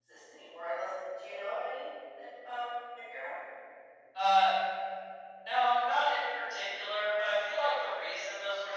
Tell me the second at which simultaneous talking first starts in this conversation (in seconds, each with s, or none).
none